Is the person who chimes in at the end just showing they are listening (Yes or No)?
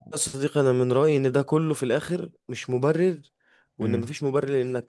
Yes